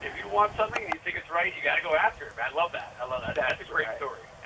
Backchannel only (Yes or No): No